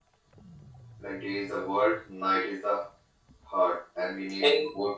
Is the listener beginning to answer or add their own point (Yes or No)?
No